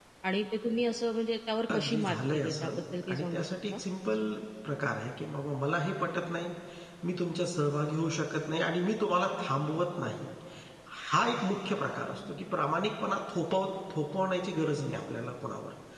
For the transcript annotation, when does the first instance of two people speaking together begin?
1.7 s

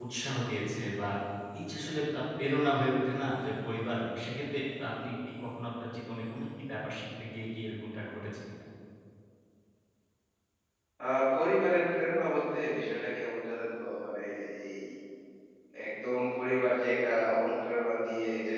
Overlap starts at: none

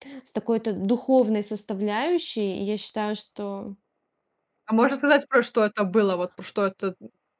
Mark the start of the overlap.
none

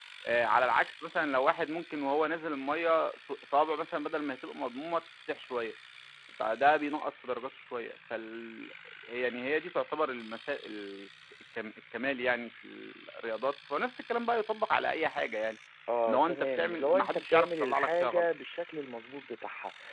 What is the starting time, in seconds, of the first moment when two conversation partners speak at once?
16.1 s

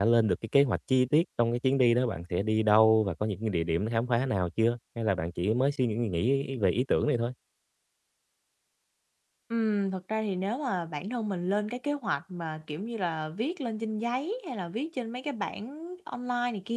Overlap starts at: none

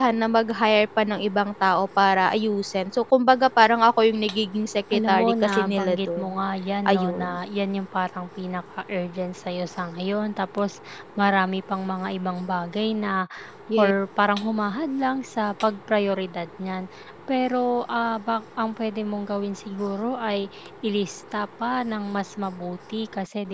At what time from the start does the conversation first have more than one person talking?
5.0 s

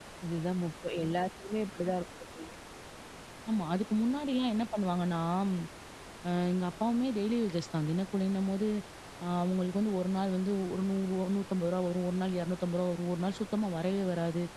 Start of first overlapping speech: none

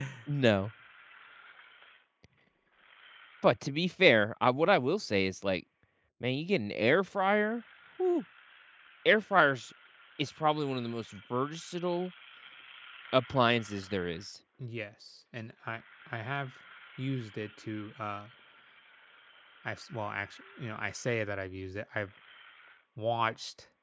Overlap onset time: none

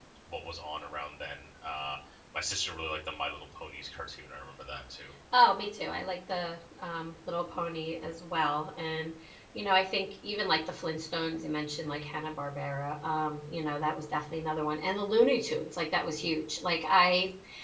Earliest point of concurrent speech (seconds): none

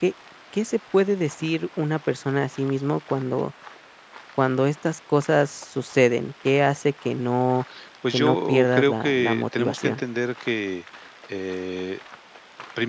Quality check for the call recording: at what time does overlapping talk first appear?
8.1 s

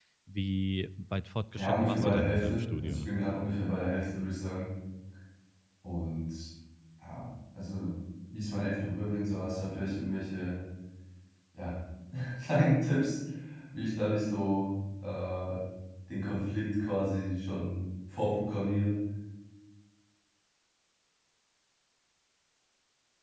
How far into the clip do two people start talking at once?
1.5 s

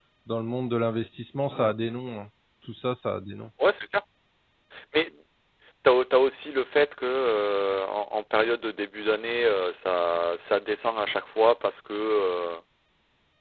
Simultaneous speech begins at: none

